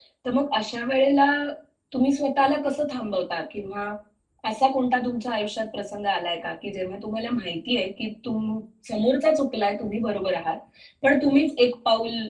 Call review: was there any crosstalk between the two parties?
No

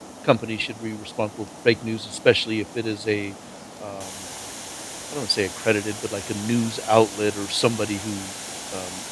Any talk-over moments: No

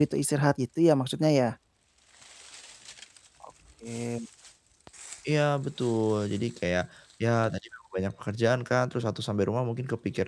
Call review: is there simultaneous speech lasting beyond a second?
No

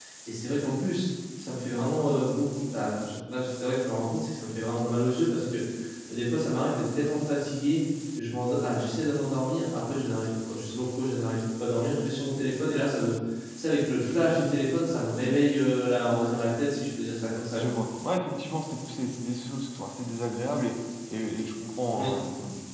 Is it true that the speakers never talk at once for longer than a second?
Yes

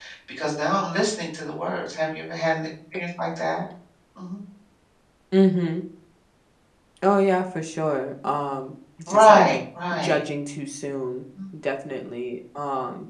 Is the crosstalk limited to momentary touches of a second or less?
Yes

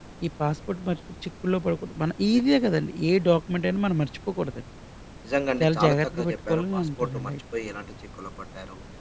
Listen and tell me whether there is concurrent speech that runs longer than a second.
Yes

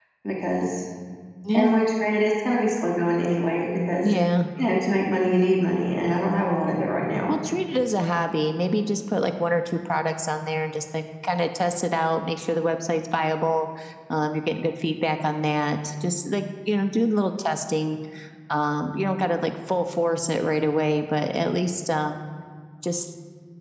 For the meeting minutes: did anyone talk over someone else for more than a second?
No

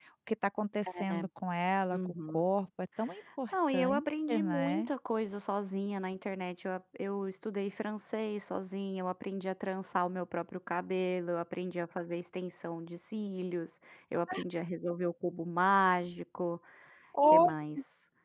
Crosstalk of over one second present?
Yes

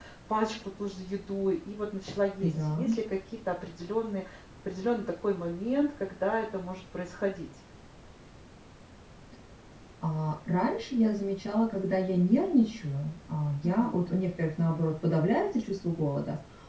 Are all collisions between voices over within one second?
Yes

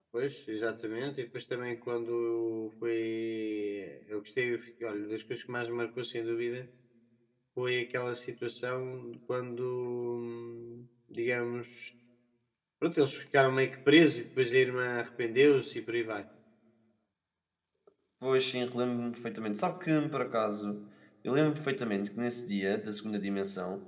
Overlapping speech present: No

